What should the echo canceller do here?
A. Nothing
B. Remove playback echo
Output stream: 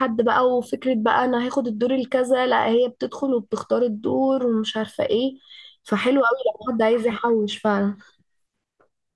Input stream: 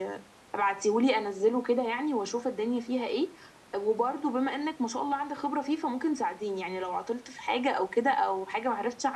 A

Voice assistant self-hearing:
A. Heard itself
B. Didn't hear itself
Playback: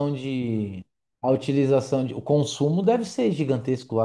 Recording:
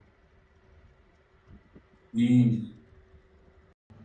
B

